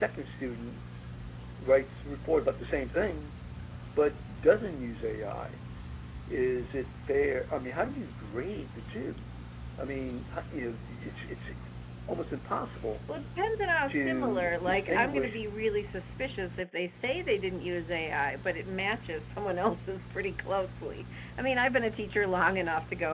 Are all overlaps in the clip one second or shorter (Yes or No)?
No